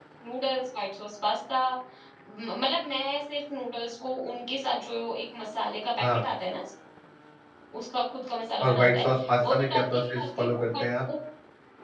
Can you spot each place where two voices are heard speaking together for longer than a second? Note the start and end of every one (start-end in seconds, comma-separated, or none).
8.6-10.9